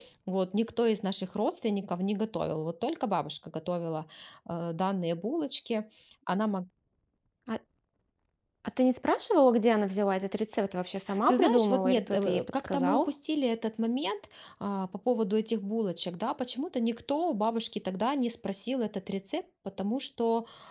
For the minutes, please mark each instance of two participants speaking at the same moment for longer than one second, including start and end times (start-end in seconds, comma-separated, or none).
11.3-13.1